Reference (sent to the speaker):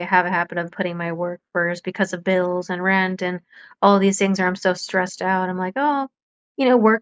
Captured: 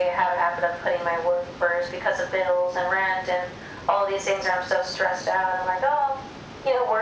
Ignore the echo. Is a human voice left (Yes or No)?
No